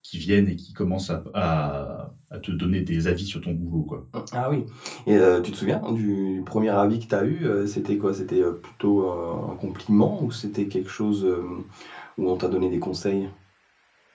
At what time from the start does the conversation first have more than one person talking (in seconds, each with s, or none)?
none